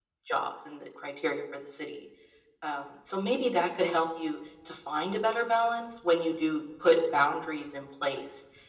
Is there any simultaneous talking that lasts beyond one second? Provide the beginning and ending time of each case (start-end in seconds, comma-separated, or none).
none